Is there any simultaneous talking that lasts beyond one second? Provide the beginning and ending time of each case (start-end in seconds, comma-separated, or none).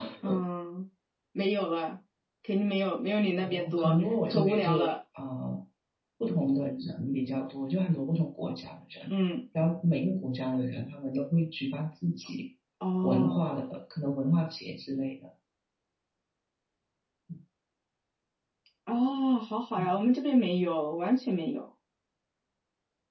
3.4-4.9